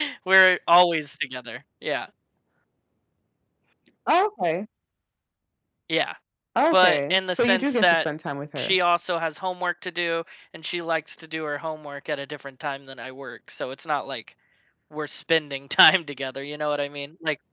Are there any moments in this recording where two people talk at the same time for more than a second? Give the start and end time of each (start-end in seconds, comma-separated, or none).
6.7-8.1